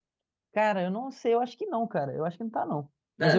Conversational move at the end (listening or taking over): taking over